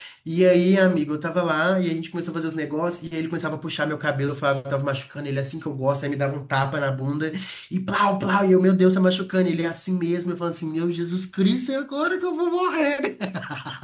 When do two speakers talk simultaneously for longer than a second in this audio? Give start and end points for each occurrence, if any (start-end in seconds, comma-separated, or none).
none